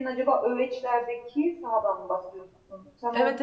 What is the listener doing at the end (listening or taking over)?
taking over